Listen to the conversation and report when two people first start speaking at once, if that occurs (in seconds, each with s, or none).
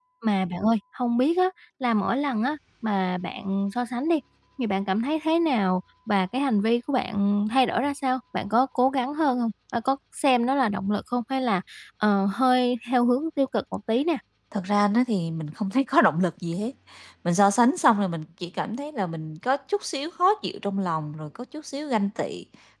none